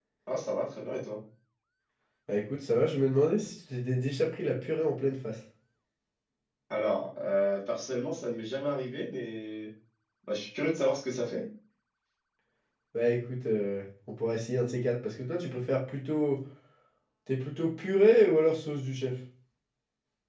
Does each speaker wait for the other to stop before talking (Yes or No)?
Yes